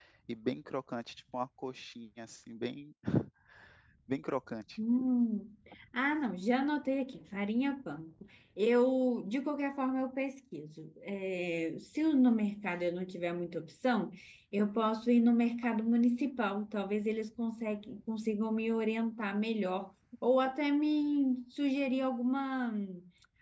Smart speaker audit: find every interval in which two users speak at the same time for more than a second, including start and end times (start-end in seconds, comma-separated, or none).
none